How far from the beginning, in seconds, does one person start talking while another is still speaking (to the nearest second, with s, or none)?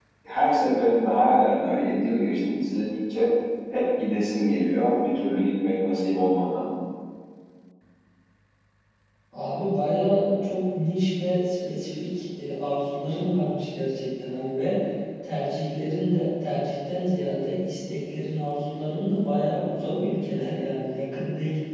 none